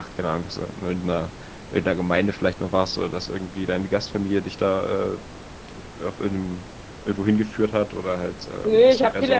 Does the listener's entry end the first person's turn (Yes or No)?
Yes